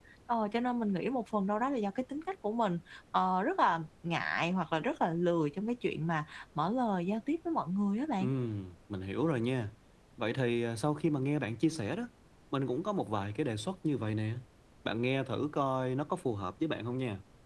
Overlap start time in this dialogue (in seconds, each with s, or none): none